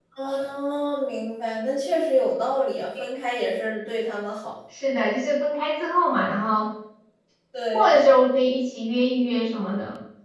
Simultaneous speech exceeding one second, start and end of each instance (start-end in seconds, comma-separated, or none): none